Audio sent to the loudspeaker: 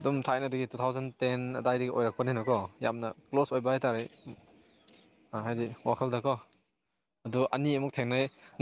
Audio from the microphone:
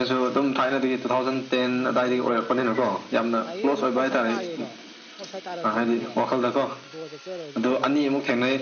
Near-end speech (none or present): present